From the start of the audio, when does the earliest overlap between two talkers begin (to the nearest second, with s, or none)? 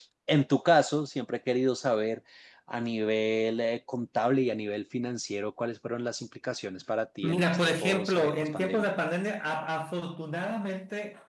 7 s